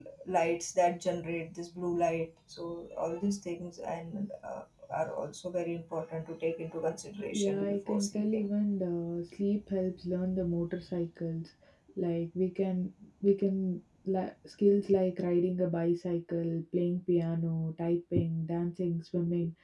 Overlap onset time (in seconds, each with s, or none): 7.3 s